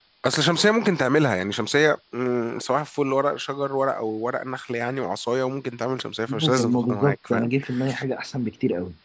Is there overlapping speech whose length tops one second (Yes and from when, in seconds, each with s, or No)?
Yes, from 6.3 s